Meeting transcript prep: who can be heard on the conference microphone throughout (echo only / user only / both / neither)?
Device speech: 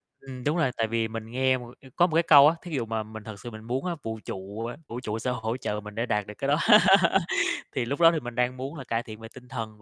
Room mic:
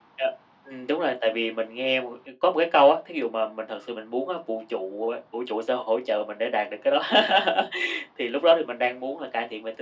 echo only